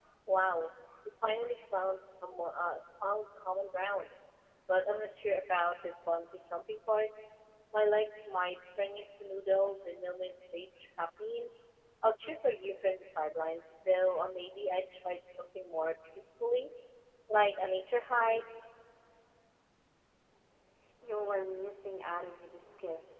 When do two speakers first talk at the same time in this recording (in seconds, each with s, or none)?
none